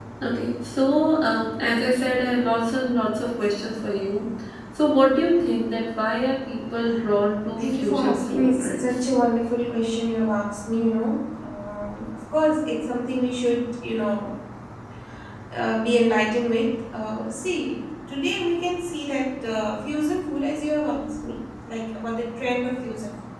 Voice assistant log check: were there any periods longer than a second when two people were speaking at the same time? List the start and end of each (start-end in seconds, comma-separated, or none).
7.6-9.1